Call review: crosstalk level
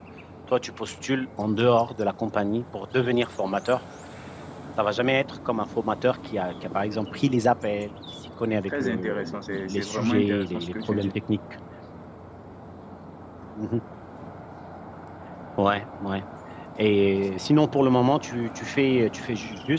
present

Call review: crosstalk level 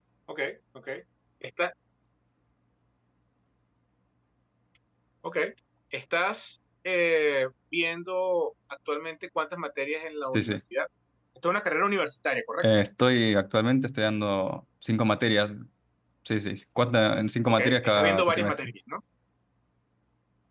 present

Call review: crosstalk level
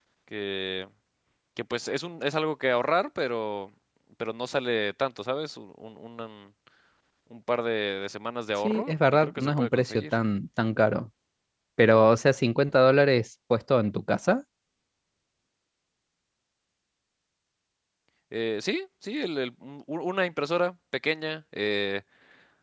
present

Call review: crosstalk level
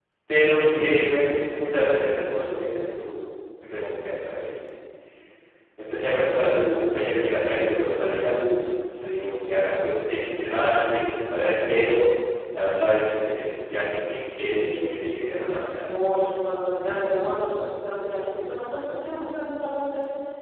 present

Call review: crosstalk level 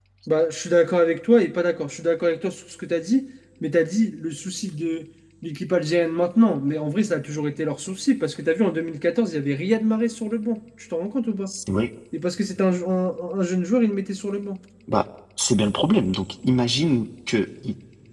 none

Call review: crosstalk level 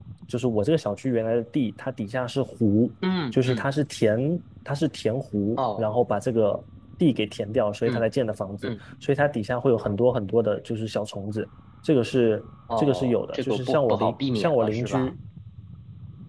present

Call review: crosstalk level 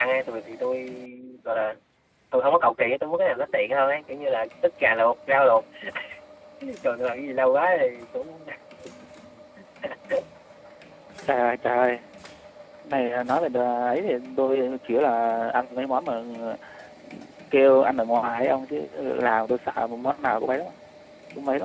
none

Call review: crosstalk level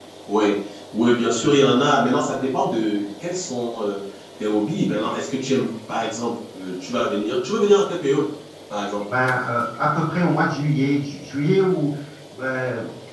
none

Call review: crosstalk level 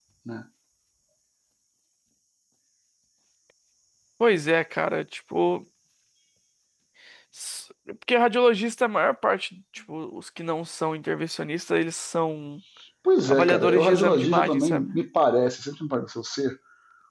present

